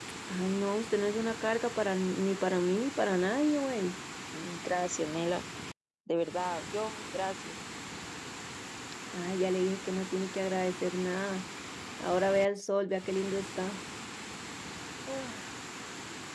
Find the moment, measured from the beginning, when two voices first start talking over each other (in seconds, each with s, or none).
none